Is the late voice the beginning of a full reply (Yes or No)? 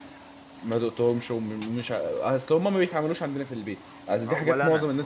Yes